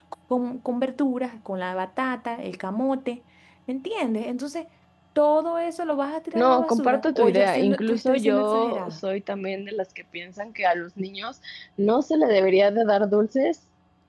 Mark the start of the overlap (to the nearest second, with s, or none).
6 s